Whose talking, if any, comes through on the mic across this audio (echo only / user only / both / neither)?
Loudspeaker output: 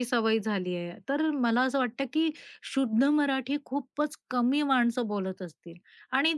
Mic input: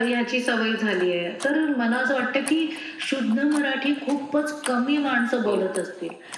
both